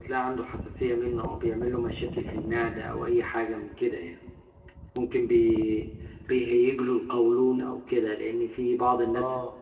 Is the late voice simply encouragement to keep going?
Yes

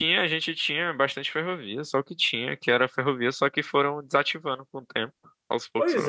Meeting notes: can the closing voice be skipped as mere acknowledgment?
No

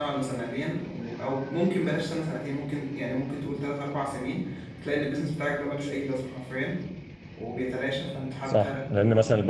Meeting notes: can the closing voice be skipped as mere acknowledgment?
No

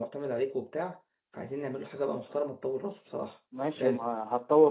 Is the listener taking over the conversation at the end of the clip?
Yes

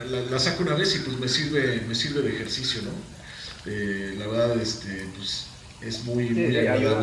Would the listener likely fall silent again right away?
No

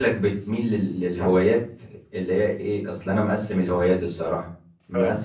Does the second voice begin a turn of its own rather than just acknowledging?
No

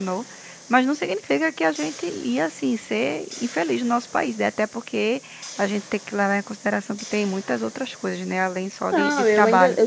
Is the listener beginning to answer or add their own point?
Yes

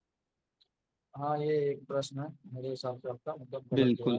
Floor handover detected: Yes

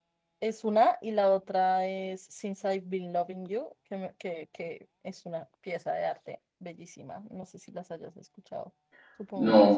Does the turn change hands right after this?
Yes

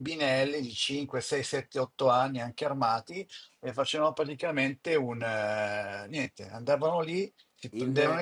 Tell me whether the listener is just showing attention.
Yes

